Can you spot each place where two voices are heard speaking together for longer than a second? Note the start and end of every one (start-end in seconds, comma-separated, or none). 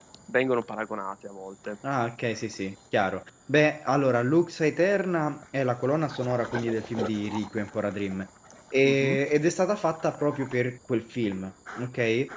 none